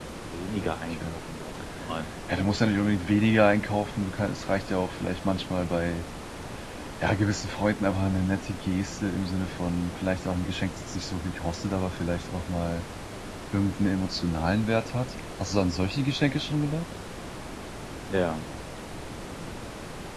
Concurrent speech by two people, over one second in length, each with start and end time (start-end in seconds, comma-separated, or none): none